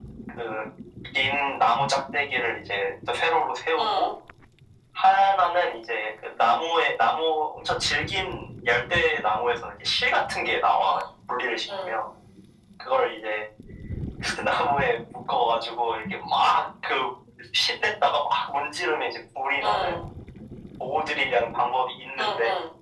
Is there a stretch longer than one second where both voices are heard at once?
No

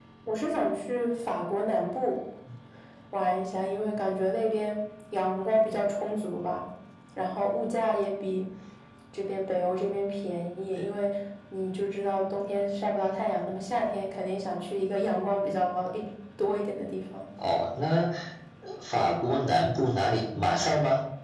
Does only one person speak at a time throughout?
Yes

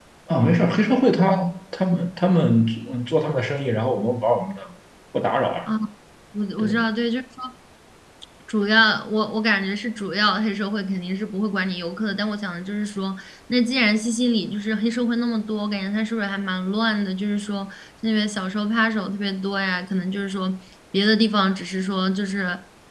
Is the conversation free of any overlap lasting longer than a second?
Yes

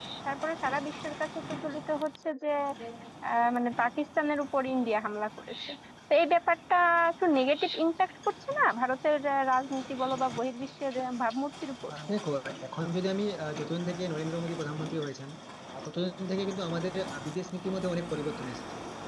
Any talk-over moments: No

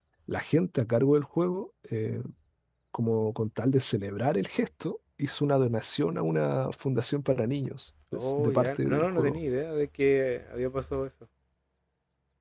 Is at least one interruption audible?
Yes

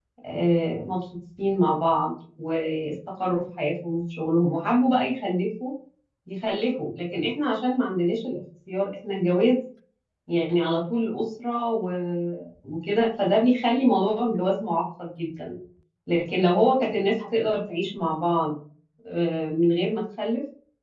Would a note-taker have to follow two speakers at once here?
No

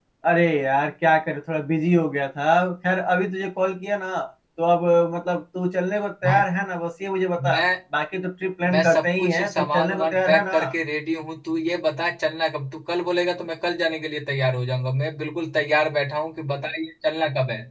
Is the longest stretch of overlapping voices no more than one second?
No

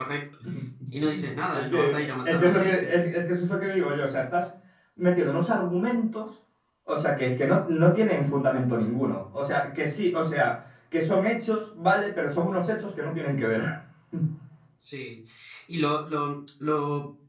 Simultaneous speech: Yes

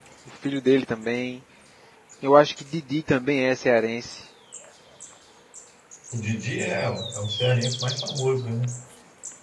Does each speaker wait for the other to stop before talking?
Yes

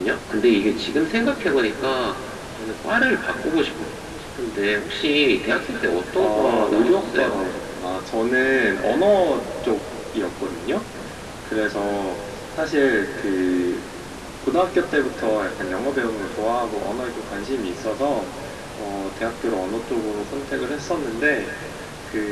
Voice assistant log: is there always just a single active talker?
No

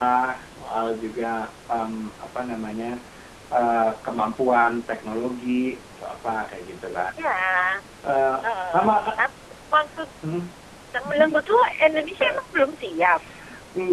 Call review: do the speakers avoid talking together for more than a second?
Yes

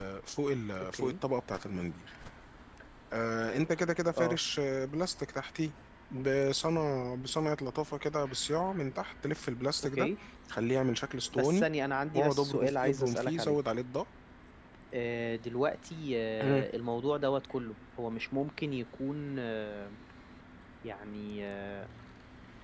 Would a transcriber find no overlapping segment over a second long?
No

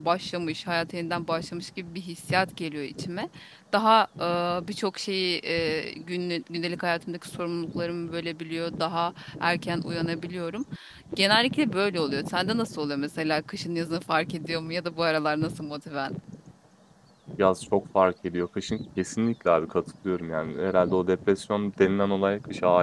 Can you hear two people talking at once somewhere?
No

